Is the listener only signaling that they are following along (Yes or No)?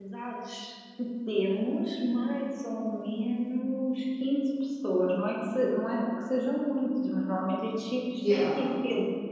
Yes